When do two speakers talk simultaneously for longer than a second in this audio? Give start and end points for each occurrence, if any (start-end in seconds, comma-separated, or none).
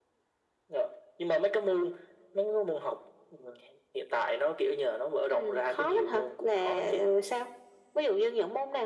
5.3-7.0